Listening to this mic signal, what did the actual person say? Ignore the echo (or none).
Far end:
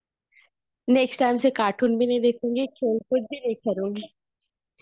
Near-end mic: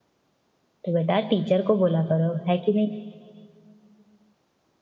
तो बेटा टीचर को बोला करो है कि नहीं